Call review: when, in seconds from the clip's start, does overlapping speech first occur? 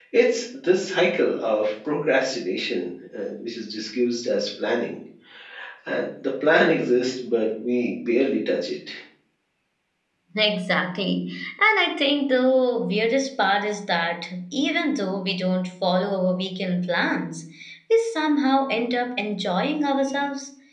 none

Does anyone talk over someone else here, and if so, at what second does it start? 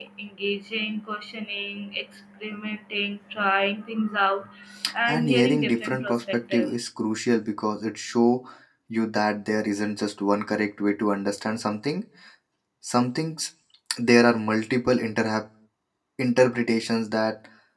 5.1 s

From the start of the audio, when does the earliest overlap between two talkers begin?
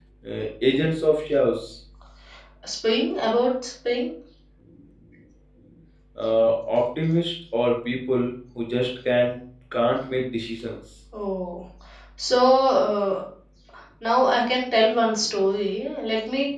none

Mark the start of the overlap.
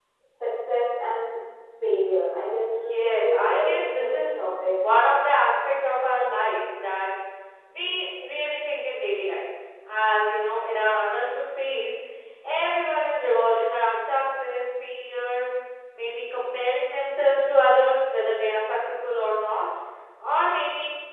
2.9 s

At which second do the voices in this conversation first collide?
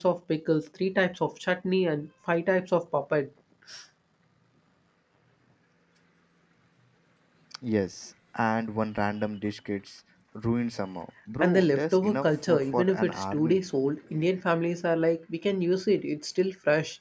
11.4 s

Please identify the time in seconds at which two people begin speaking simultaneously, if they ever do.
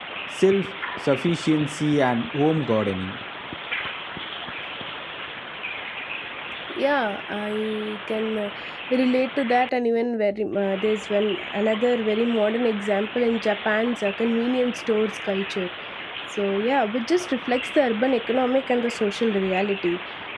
none

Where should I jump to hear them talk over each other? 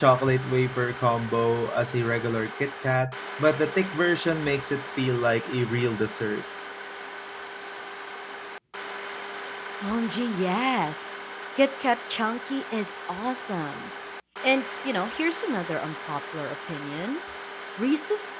none

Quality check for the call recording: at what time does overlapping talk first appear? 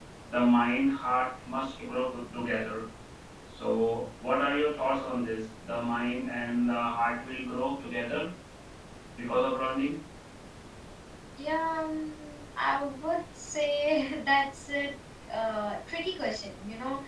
none

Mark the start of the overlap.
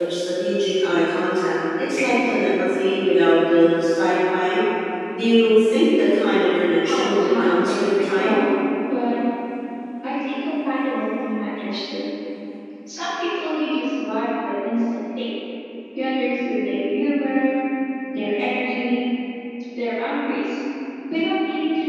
6.9 s

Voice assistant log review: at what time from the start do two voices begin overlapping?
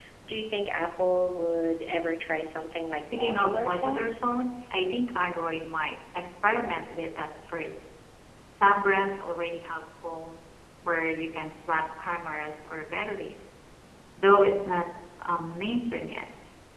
2.9 s

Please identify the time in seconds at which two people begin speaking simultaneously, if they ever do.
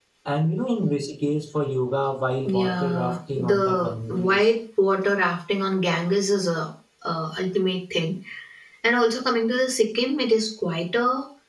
2.4 s

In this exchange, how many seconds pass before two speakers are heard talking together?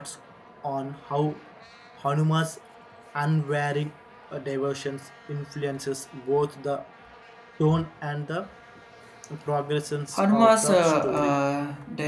10.1 s

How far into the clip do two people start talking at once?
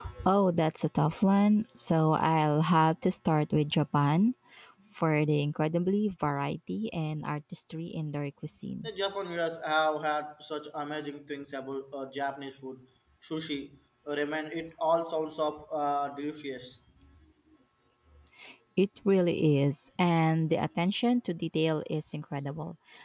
none

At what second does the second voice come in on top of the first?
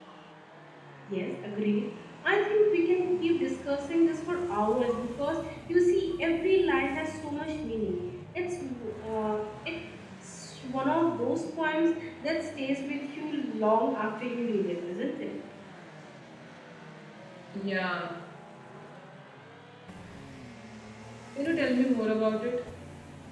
none

